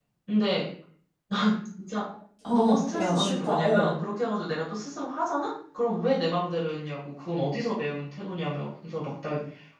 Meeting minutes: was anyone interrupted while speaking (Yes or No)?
Yes